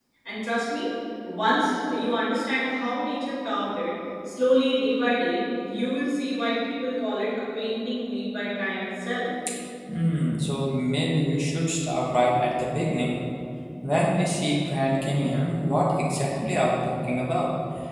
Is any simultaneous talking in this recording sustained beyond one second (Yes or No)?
No